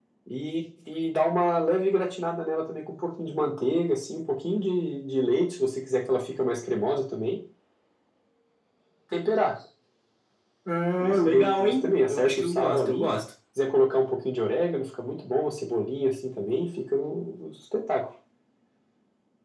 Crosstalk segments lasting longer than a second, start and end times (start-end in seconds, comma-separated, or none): 11.0-13.1